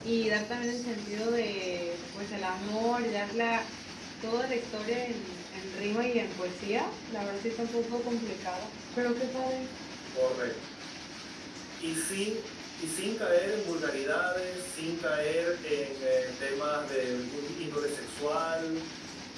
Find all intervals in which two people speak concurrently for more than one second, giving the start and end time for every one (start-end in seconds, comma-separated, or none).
none